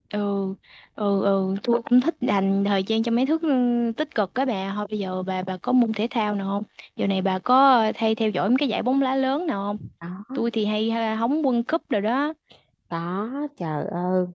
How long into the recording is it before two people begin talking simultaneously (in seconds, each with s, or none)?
none